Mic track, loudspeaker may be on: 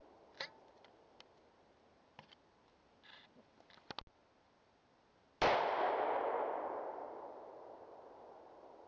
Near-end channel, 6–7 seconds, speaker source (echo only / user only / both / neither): neither